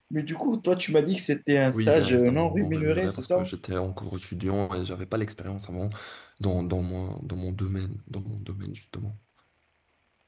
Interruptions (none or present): present